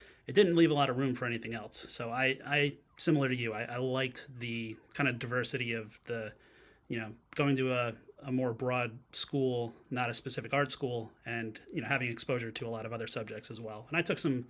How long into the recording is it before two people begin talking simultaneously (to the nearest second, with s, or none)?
none